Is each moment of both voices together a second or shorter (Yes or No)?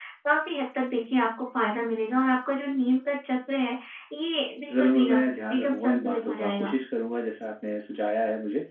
No